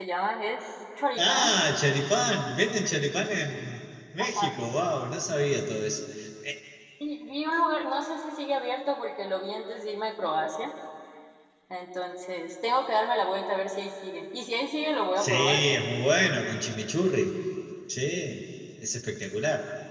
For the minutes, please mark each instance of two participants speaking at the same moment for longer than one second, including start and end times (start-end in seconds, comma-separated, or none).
none